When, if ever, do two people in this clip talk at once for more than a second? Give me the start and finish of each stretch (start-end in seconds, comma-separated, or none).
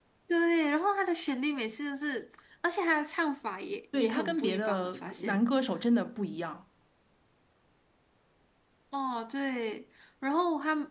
3.9-5.4